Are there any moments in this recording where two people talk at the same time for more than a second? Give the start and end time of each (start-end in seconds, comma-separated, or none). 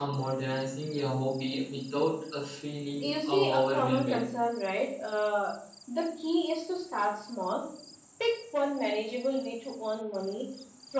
3.0-4.2